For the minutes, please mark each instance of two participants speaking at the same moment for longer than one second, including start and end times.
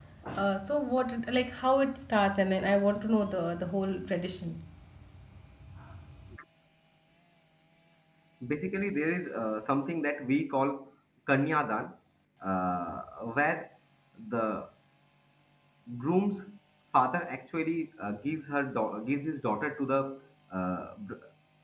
none

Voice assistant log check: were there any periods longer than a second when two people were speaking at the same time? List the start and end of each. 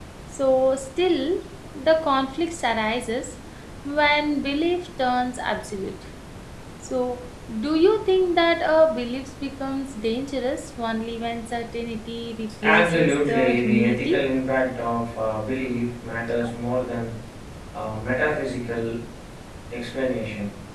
12.6-14.2

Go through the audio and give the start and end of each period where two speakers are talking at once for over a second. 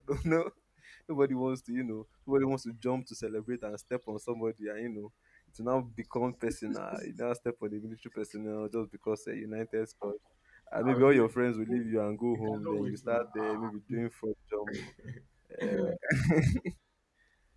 12.3-13.6

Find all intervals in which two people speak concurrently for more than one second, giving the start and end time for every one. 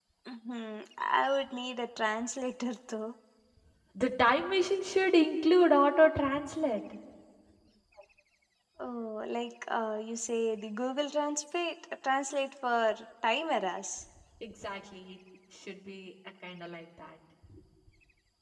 none

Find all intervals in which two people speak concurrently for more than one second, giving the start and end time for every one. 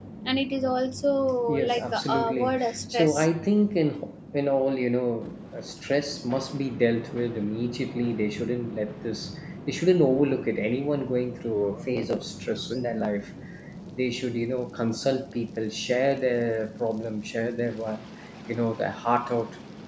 1.7-3.3

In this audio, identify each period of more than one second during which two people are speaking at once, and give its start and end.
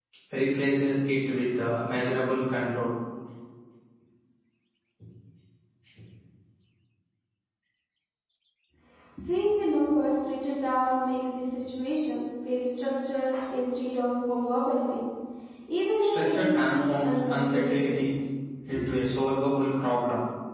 16.1-17.9

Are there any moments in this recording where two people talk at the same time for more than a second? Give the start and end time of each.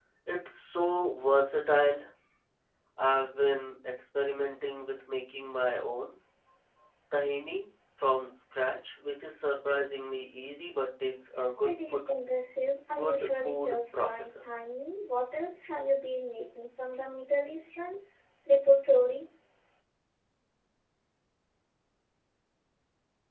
12.9-14.4

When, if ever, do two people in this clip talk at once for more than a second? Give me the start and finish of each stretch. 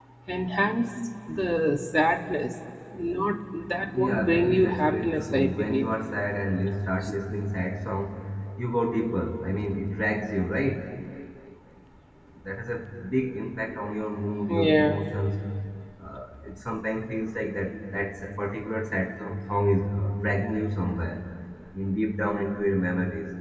3.9-5.9

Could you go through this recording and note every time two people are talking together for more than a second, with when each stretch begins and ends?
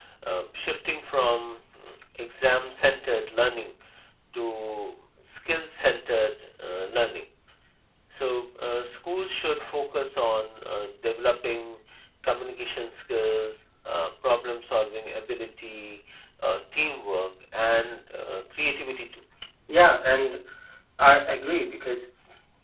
none

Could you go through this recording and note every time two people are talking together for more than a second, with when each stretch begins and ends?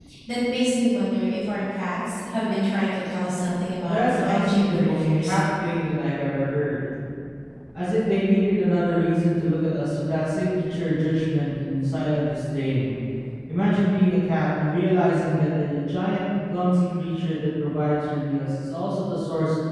3.9-5.4

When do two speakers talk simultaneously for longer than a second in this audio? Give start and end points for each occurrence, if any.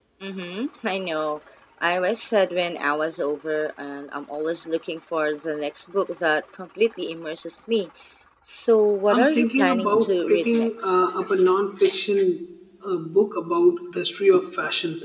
9.1-11.0

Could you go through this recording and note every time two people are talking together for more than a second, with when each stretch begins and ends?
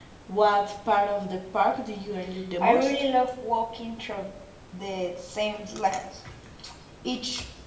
none

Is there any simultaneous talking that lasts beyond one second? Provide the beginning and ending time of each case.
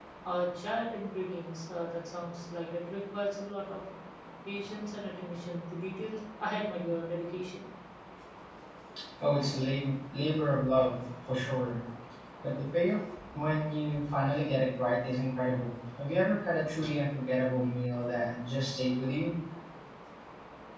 none

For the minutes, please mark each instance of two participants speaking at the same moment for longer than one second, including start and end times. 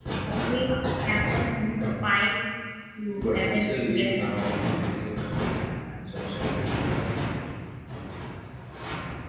3.1-4.8

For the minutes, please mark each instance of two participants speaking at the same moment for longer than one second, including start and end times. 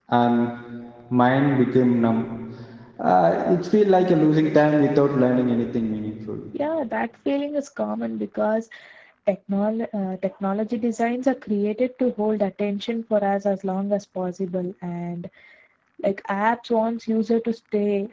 none

